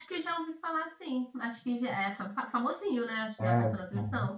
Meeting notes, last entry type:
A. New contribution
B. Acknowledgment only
A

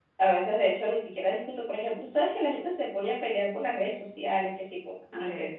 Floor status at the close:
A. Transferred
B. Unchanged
B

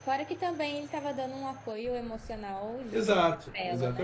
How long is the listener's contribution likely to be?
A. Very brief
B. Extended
B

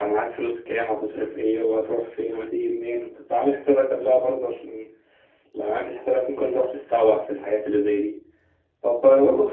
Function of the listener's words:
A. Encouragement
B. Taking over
A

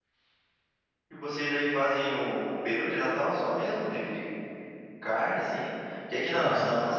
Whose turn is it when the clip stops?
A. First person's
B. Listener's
A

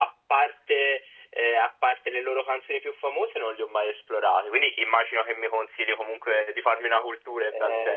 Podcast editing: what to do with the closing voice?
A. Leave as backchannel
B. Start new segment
B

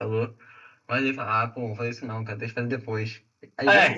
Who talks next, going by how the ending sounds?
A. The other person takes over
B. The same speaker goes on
B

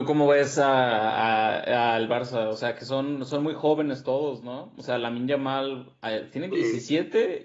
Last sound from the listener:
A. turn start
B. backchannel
B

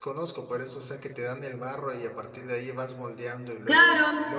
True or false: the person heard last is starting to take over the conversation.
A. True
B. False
A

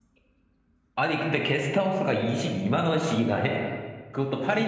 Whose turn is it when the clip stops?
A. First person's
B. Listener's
B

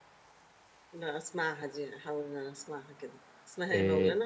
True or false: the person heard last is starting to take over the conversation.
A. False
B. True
B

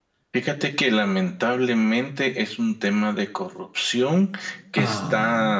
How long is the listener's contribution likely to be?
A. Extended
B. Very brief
B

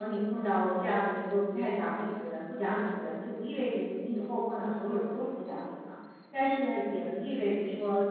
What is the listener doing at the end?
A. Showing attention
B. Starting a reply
A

